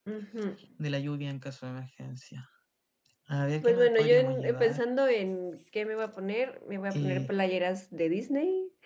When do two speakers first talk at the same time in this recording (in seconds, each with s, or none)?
3.6 s